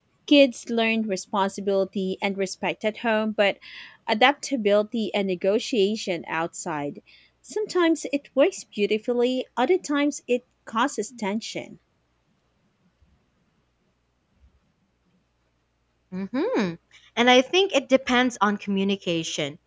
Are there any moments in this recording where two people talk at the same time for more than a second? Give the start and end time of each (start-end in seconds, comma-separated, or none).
none